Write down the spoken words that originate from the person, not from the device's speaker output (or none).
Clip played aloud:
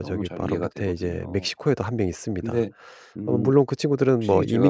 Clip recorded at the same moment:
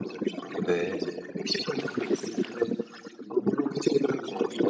네.